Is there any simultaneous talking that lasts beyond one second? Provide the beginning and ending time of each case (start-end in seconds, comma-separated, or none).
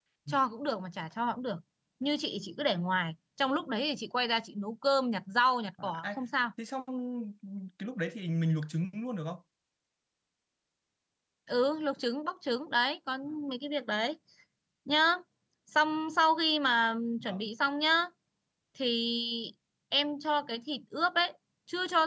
none